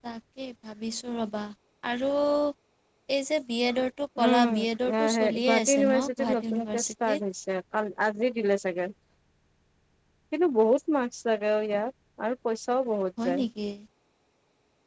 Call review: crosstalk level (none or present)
present